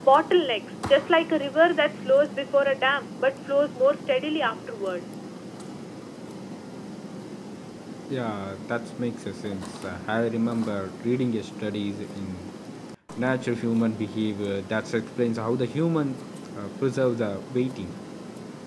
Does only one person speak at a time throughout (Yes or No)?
Yes